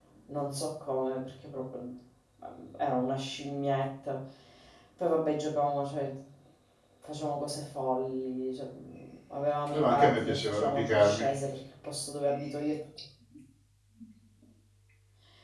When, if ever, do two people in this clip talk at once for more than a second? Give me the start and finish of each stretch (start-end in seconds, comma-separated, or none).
9.7-11.3